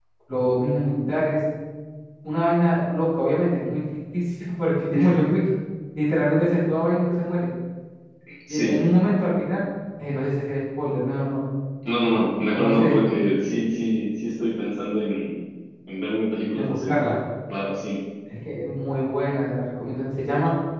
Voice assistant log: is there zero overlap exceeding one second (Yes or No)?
Yes